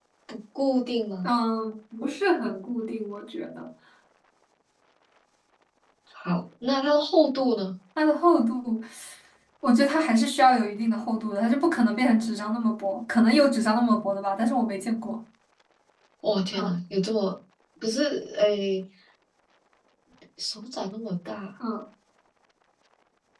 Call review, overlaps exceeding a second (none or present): none